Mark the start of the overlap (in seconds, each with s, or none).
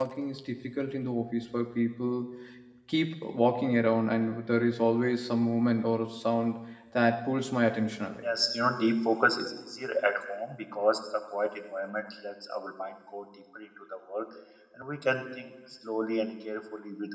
none